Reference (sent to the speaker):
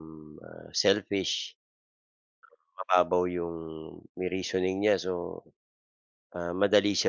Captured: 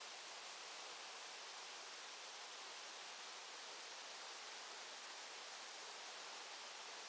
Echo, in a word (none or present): none